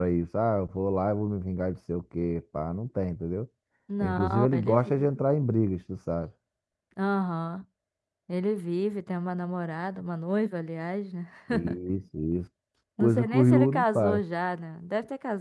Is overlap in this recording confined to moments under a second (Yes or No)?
No